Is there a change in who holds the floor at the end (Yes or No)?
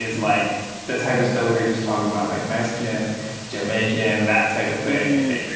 Yes